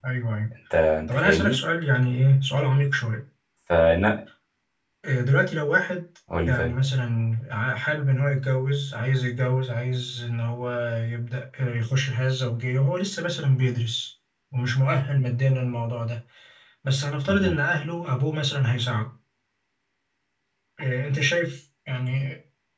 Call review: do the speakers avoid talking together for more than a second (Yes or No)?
Yes